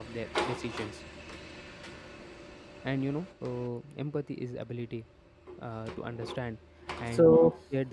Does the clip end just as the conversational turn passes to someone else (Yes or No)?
No